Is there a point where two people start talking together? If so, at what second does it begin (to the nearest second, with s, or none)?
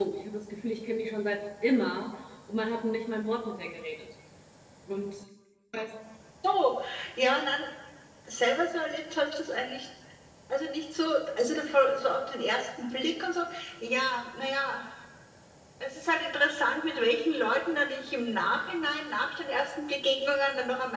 none